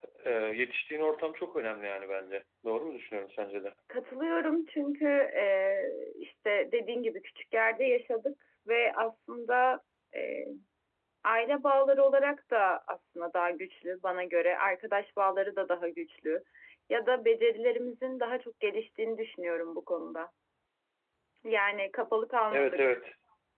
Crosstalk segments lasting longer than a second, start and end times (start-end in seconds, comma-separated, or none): none